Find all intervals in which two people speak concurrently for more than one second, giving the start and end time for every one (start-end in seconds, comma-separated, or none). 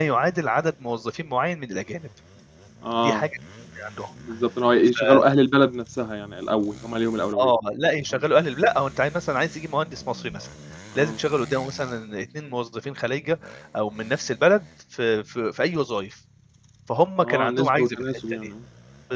17.2-18.5